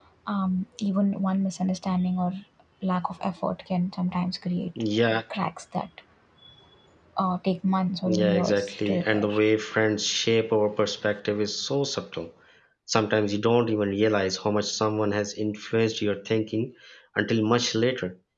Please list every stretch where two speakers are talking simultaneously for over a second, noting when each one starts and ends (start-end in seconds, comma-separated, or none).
8.1-9.3